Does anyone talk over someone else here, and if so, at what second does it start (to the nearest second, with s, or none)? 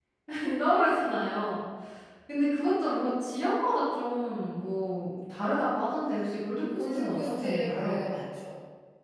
7 s